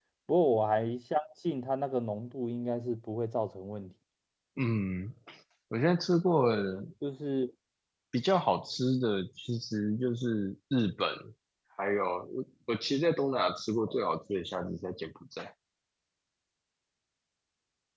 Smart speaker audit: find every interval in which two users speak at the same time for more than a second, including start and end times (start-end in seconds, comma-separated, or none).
none